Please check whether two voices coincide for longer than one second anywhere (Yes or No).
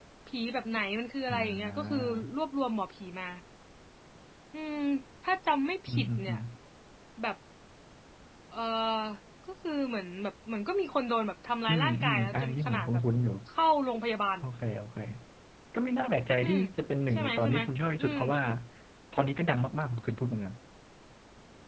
Yes